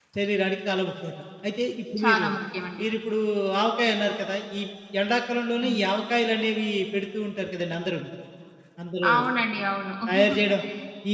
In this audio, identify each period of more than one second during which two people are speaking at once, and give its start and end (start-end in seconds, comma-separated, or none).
none